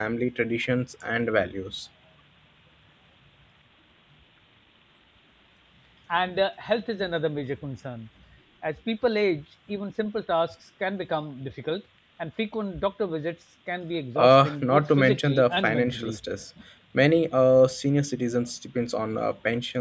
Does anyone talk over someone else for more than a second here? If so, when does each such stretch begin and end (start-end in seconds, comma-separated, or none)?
14.2-16.2